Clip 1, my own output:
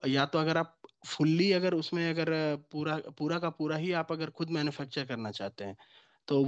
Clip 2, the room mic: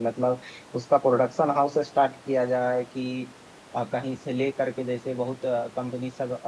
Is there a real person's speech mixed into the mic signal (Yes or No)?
Yes